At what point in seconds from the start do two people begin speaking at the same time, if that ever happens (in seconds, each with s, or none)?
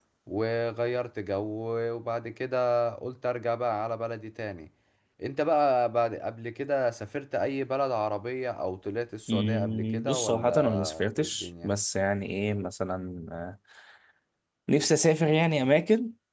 9.3 s